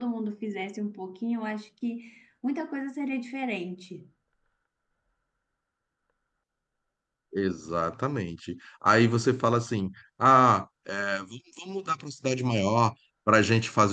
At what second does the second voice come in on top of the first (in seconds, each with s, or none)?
none